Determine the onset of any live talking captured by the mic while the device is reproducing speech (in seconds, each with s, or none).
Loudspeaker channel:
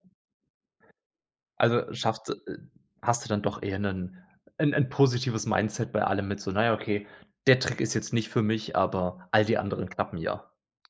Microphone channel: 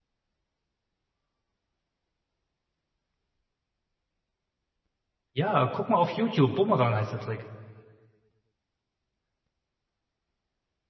5.3 s